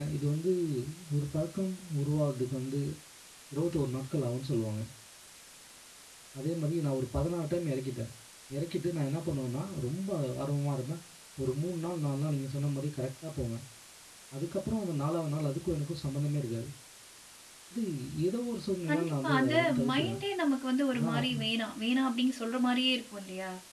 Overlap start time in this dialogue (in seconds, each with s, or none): 18.9 s